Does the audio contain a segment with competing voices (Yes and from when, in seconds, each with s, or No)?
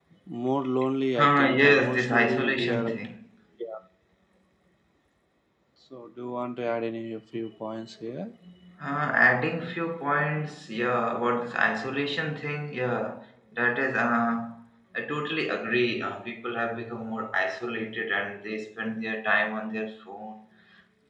Yes, from 1.2 s